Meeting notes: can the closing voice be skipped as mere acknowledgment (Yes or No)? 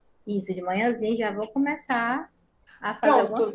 No